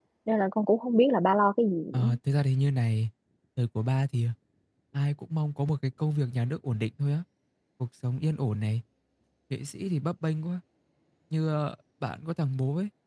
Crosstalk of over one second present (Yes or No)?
No